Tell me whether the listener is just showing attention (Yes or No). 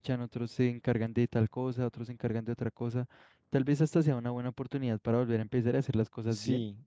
No